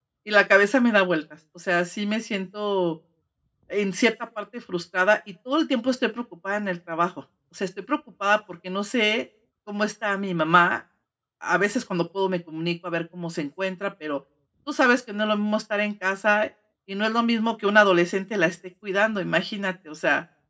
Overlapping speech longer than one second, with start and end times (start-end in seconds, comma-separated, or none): none